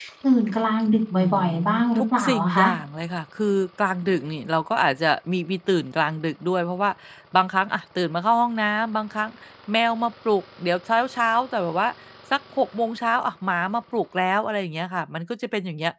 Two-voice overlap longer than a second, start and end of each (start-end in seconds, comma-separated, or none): 0.8-2.7